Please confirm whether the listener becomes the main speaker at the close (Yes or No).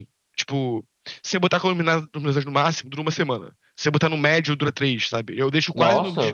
No